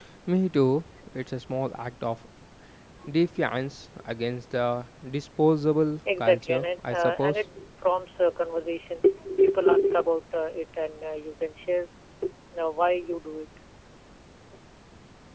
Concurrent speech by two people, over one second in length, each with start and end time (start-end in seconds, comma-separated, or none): 6.2-7.4